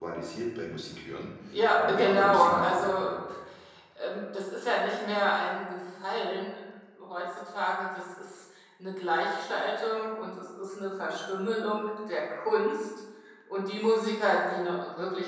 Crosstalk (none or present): present